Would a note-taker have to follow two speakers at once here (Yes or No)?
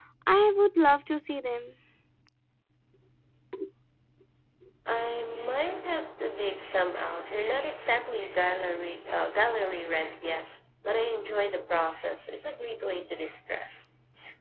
No